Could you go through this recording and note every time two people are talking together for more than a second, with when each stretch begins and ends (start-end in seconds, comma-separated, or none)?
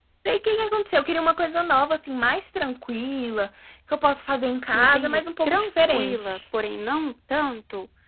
4.7-6.4